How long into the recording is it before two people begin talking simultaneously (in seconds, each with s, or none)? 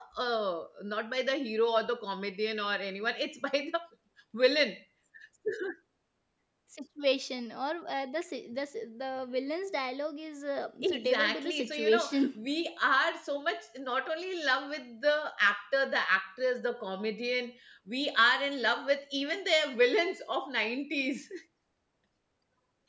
10.8 s